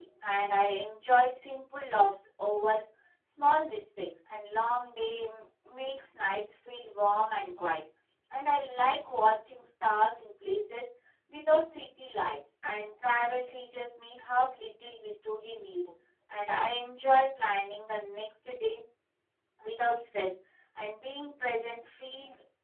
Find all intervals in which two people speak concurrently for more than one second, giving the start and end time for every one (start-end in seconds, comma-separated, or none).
none